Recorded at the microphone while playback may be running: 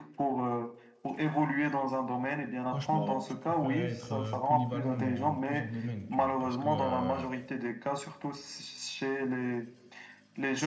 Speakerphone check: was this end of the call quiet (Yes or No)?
No